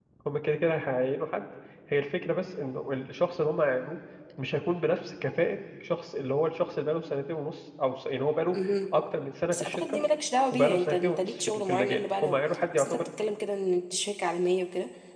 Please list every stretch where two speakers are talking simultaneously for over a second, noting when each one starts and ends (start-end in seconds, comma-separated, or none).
10.5-12.4